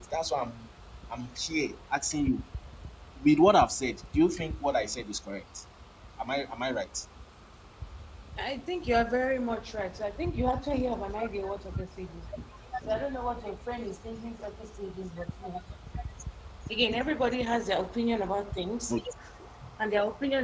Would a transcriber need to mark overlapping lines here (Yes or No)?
No